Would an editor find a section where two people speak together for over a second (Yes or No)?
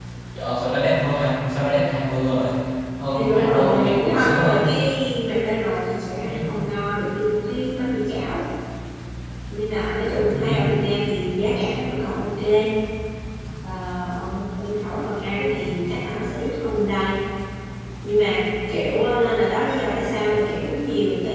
Yes